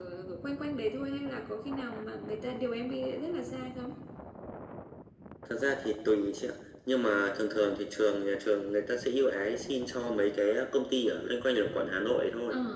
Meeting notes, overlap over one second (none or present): none